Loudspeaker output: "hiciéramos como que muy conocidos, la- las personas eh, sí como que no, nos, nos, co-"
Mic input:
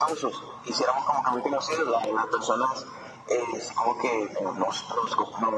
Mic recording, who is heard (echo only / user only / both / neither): echo only